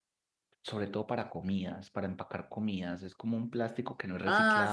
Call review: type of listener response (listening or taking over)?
taking over